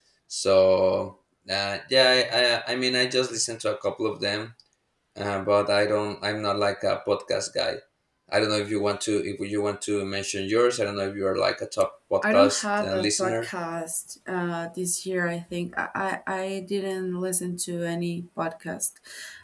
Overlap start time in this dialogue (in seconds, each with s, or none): 12.2 s